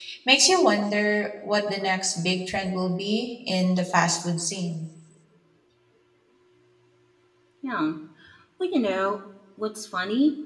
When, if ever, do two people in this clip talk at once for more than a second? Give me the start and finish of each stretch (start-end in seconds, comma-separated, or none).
none